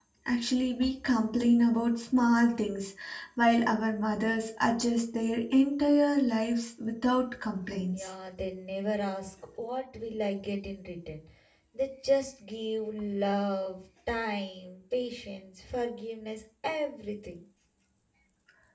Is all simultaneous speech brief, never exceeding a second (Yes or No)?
Yes